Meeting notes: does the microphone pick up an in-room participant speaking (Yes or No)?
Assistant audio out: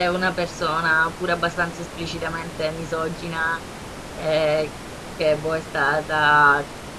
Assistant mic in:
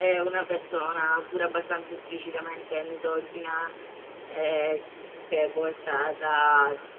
No